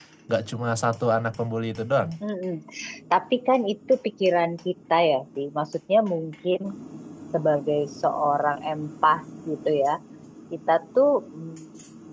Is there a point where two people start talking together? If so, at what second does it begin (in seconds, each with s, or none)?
none